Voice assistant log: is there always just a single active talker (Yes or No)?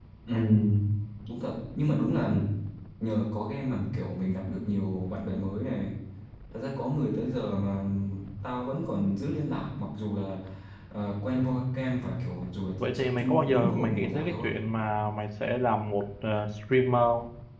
No